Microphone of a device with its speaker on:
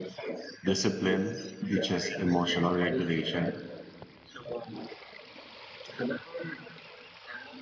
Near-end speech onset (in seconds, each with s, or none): 0.6 s